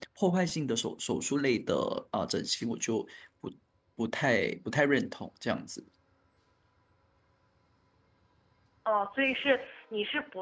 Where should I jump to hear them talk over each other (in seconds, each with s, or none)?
none